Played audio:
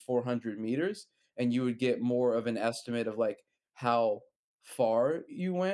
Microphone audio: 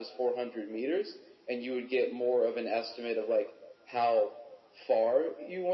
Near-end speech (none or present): none